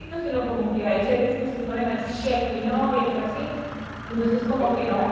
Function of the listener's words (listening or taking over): listening